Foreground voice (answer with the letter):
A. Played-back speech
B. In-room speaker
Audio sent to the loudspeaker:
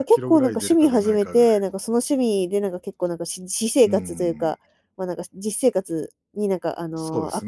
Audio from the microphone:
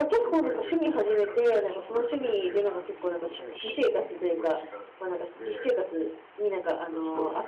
A